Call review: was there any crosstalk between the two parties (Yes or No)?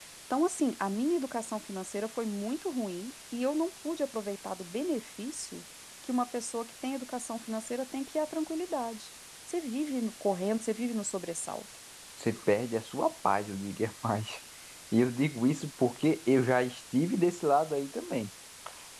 No